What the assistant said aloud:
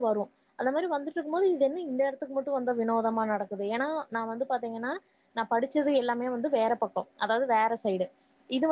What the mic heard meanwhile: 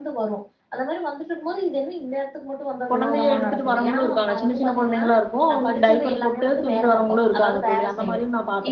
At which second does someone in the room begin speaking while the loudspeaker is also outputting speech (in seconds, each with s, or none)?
2.9 s